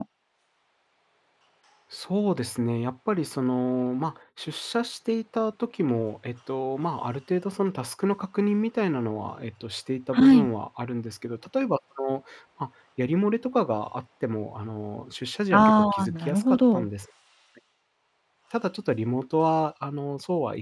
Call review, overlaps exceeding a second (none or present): present